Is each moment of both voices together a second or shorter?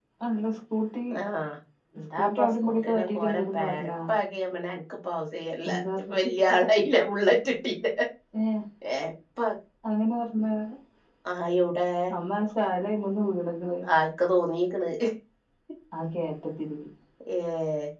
No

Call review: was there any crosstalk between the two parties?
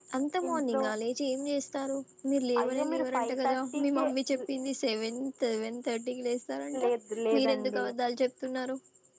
Yes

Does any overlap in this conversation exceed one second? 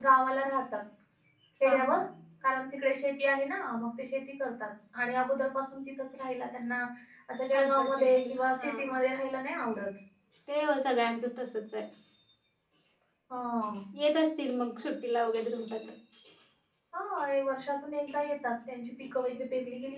Yes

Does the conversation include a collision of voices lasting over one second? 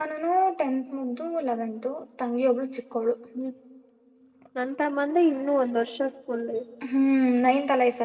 No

